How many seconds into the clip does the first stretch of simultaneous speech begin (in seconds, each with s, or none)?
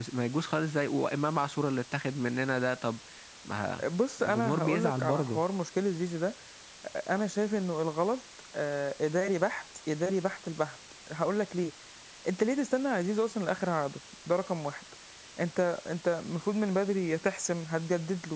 4.2 s